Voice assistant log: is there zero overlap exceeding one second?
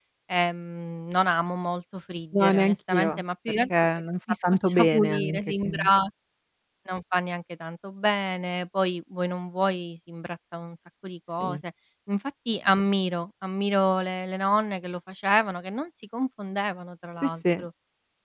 No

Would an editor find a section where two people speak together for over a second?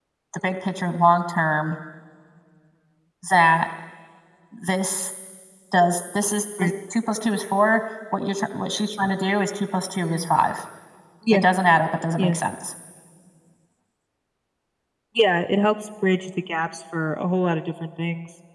No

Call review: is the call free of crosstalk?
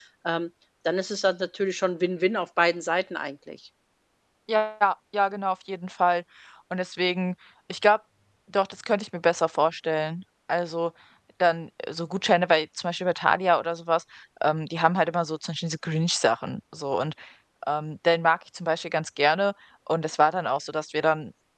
Yes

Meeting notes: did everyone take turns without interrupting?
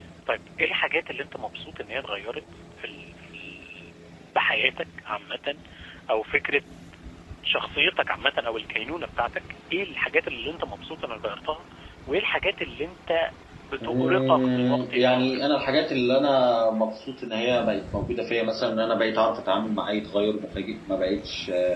No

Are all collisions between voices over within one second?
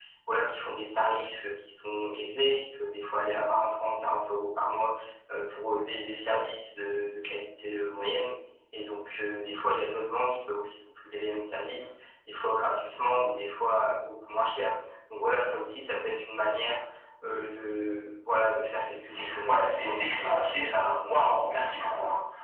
No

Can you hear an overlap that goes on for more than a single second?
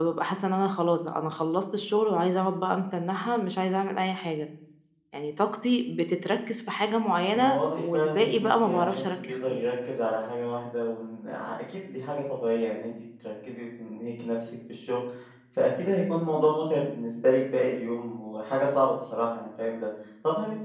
Yes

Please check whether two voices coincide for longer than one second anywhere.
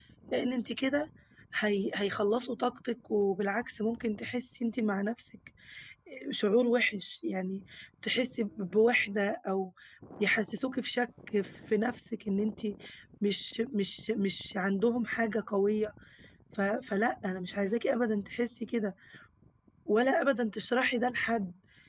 No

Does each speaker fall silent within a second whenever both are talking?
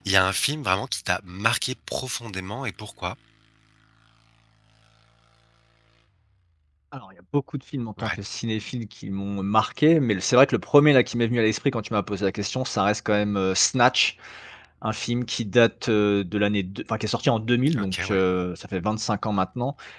Yes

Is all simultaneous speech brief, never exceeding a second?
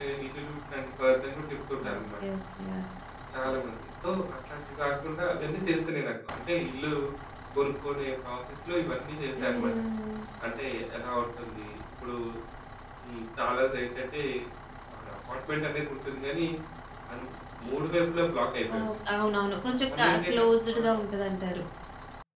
Yes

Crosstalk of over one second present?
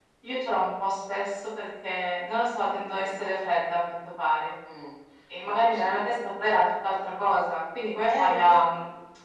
No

